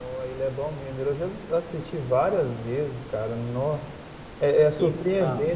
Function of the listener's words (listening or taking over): listening